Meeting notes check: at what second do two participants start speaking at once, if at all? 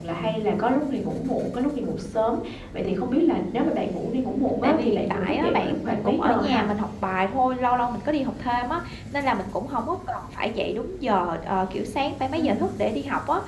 5 s

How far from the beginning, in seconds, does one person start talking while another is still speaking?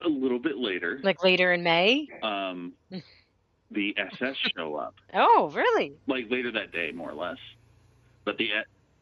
none

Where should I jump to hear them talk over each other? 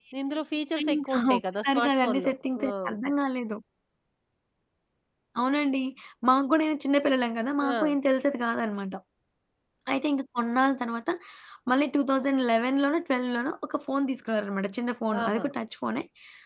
1 s

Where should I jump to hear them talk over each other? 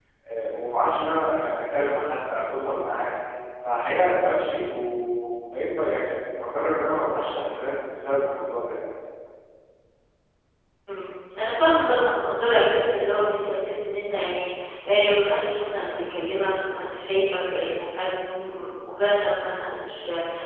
none

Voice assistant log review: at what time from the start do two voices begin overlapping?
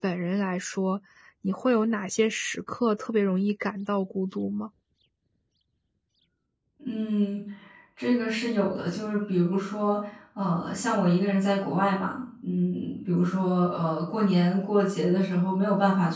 none

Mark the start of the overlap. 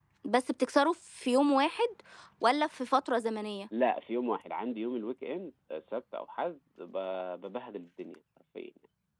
none

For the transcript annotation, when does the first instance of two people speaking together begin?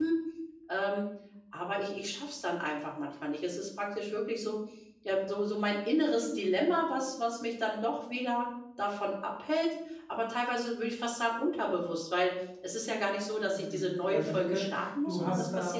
13 s

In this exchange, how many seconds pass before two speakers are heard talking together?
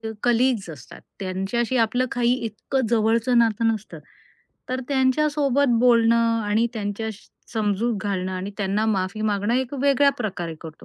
none

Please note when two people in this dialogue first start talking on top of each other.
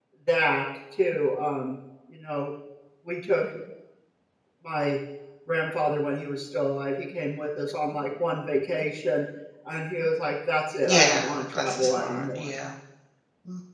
11 s

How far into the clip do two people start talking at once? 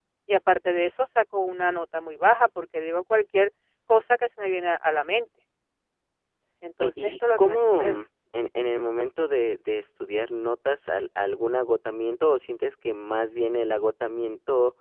7 s

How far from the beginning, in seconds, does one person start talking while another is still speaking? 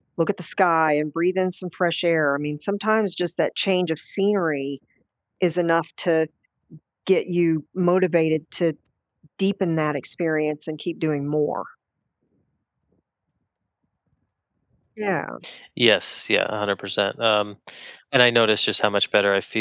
none

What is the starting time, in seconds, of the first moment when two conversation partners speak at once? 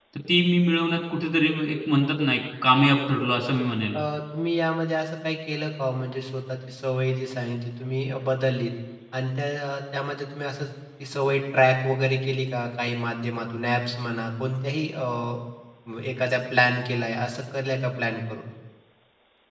none

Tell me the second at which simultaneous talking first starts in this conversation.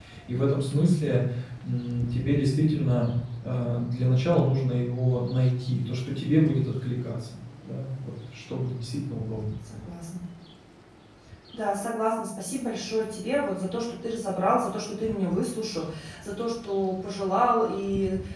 none

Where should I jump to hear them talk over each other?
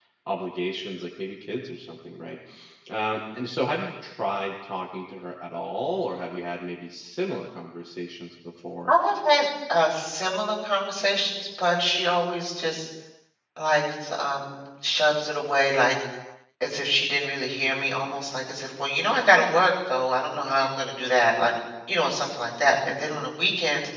none

